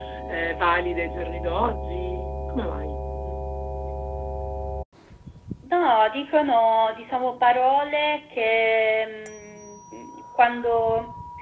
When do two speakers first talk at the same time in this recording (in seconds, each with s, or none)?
none